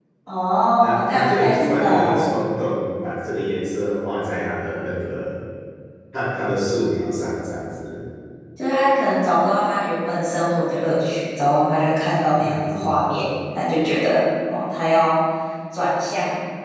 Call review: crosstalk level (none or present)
present